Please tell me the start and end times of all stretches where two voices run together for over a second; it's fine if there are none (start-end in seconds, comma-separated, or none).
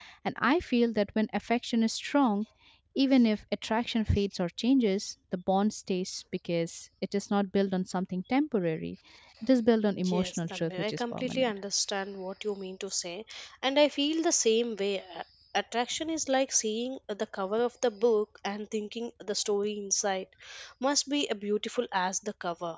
10.1-11.5